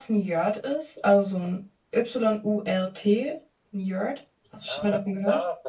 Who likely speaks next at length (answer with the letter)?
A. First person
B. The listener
B